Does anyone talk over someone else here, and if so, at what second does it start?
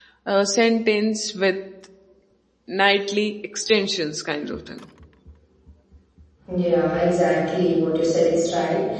none

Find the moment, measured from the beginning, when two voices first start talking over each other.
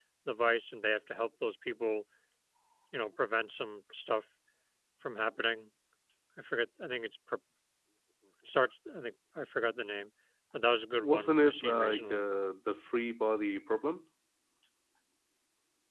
11.0 s

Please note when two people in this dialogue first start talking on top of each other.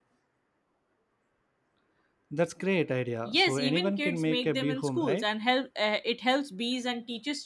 3.2 s

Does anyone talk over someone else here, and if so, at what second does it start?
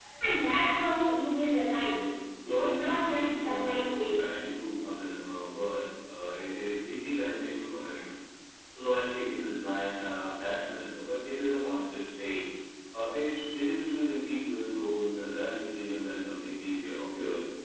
2.6 s

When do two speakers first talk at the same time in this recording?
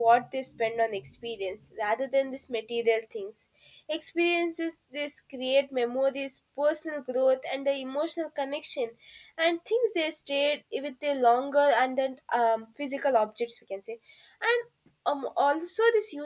none

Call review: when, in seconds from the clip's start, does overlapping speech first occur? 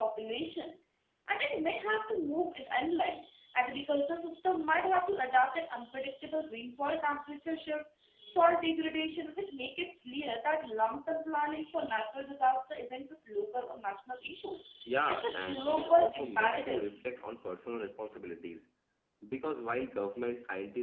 15.1 s

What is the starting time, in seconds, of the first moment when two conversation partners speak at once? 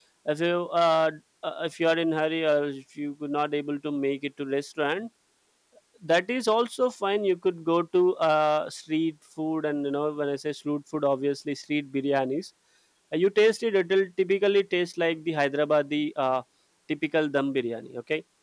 none

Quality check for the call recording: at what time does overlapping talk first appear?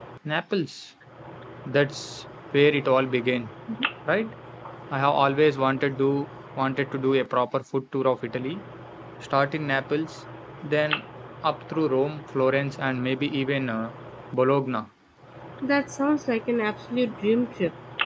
none

